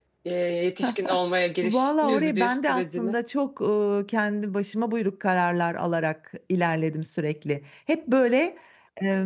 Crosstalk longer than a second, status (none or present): present